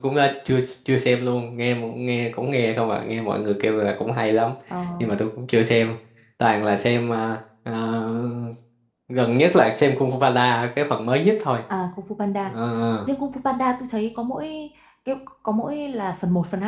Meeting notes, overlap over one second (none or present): none